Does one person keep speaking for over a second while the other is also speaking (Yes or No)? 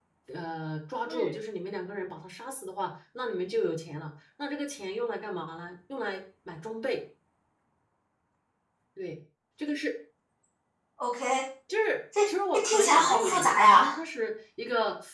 Yes